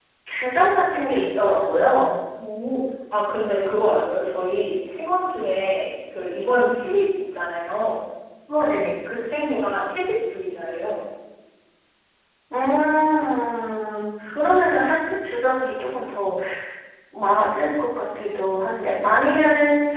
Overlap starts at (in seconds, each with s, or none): none